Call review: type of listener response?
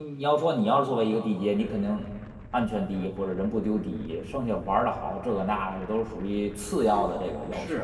taking over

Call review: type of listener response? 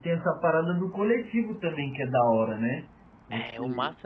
taking over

